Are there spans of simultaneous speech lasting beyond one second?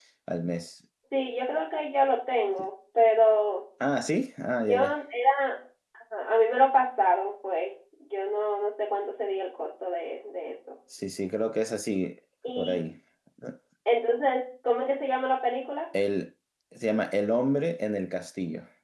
No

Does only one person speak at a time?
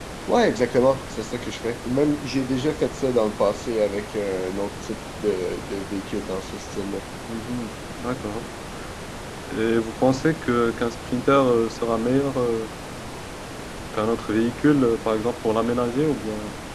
Yes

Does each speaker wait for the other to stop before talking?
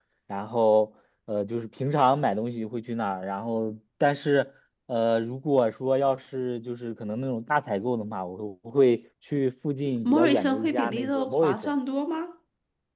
No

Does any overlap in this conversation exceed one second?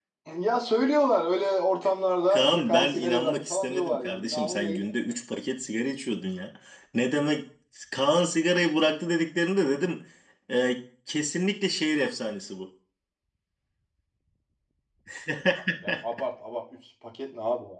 Yes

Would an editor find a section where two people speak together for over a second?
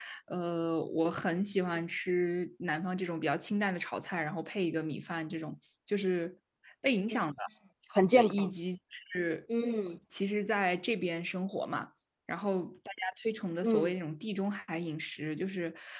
No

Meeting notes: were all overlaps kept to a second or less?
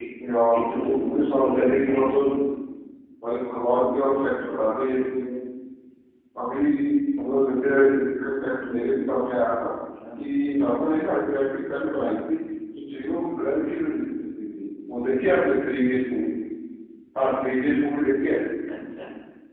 No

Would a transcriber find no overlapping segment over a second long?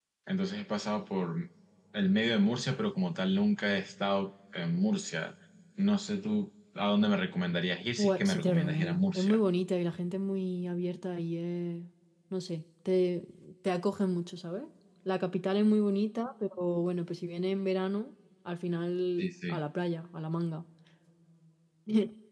No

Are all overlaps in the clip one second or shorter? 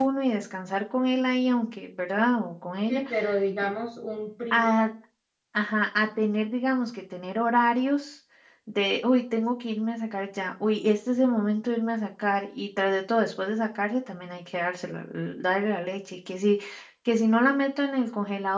Yes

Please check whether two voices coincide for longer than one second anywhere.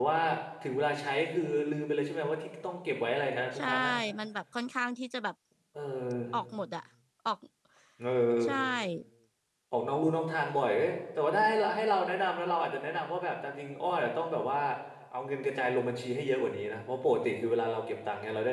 No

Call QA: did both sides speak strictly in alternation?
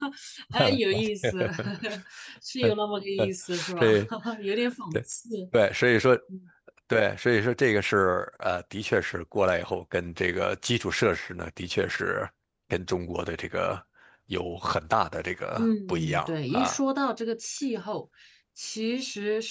No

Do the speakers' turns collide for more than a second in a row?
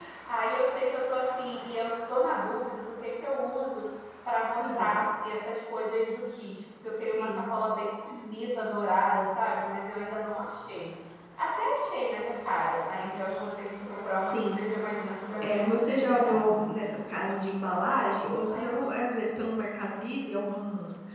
Yes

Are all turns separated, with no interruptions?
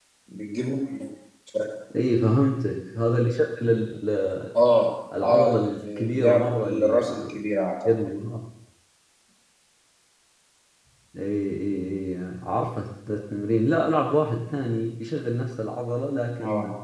No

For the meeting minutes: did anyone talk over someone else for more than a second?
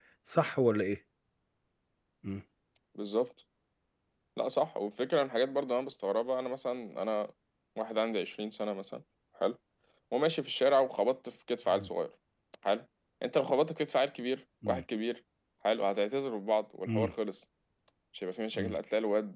No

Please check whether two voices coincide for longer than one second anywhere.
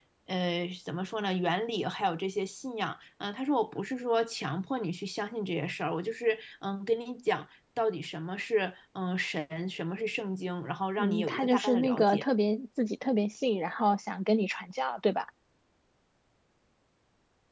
Yes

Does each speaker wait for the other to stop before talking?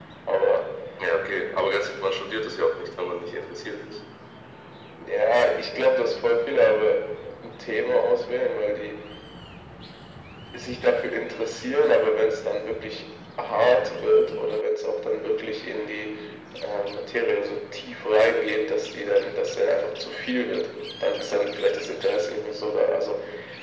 Yes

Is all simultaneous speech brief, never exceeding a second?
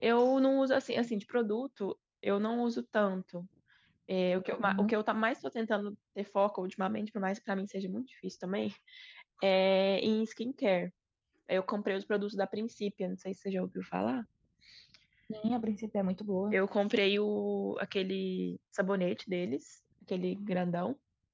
Yes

